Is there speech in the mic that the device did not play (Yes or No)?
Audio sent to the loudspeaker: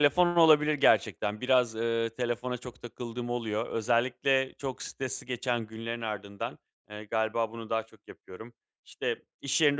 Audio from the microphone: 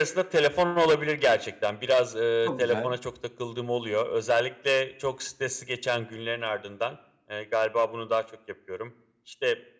Yes